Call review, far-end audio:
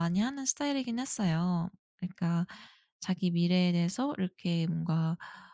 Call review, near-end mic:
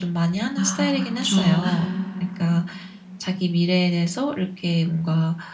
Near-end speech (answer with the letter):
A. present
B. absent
A